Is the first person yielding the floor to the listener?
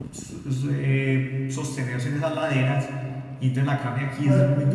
No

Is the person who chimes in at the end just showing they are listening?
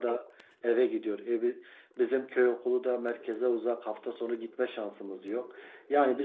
Yes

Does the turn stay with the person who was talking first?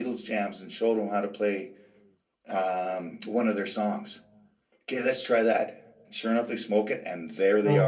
No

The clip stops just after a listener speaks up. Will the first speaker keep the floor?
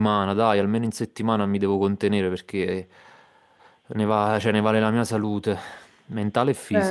No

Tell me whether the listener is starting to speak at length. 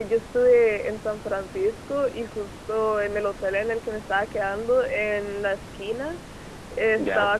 No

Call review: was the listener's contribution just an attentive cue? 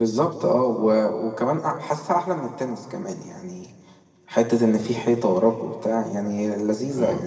No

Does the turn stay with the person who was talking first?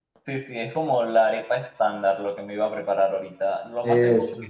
Yes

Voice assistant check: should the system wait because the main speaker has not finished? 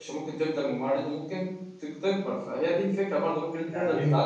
No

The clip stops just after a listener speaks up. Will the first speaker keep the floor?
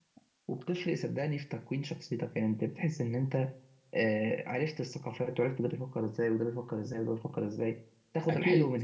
Yes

